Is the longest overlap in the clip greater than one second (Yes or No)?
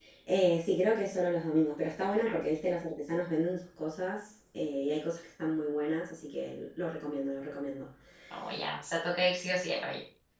No